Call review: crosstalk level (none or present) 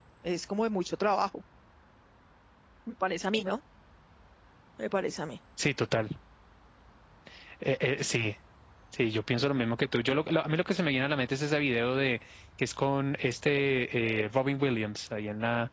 none